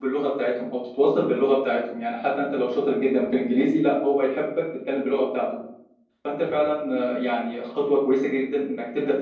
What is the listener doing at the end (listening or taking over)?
listening